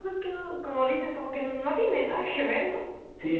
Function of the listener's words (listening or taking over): taking over